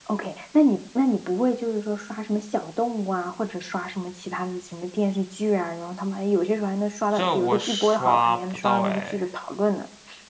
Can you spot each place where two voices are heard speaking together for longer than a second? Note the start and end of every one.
7.1-9.2

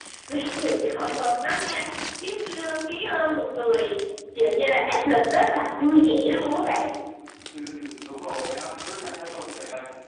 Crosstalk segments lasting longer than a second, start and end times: none

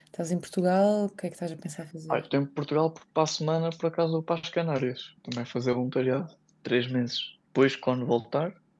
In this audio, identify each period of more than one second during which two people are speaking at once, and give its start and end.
none

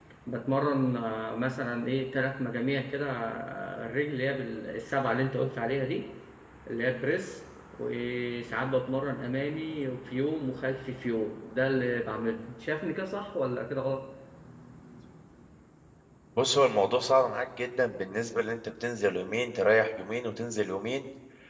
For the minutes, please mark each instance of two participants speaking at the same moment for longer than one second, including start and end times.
none

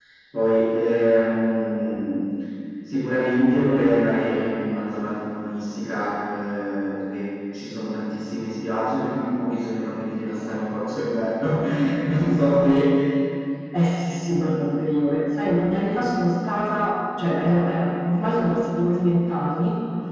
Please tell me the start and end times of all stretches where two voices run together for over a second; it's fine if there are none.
none

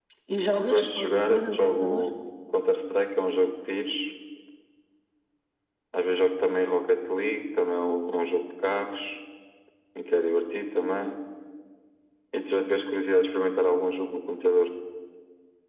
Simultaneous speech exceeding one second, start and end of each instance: 0.6-2.0

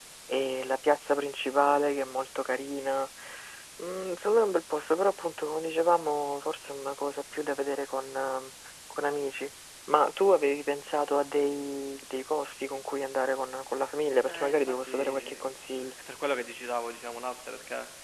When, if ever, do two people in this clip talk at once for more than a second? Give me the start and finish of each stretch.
14.2-16.0

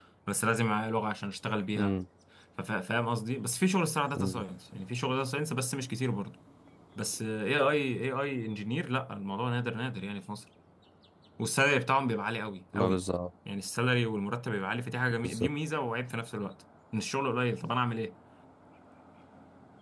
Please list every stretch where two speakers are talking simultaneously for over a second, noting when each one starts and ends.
none

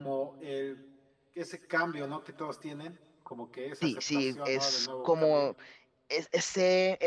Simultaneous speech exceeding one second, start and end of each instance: 3.8-5.5

